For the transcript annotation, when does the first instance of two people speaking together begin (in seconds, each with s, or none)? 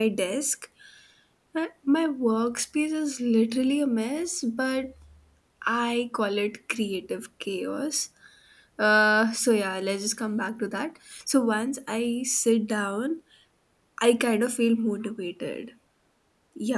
none